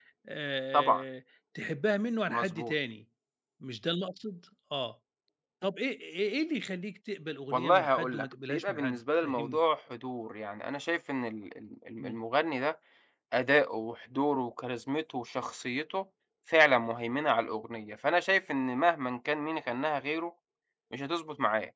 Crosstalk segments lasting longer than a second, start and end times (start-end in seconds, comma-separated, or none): 7.5-9.6